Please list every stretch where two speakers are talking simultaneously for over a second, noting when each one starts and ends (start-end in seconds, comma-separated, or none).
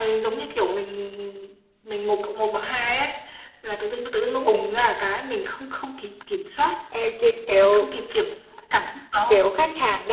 none